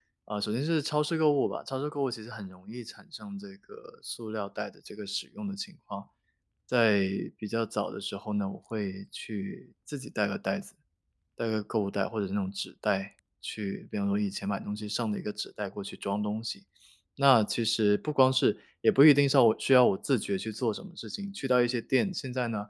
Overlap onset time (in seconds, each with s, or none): none